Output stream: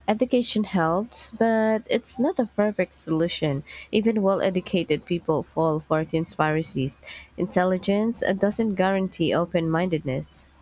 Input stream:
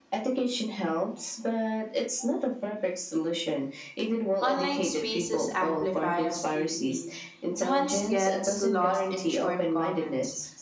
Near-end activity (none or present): present